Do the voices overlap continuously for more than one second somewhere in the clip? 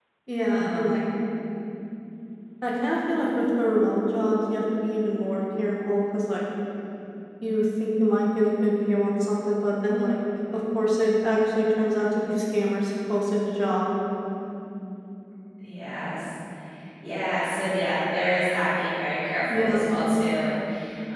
No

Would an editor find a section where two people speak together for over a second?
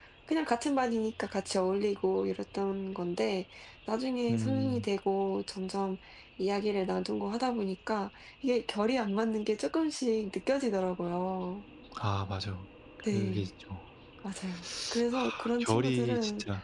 Yes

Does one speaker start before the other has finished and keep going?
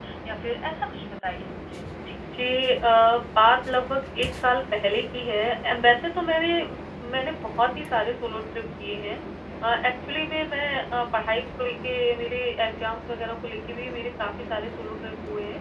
No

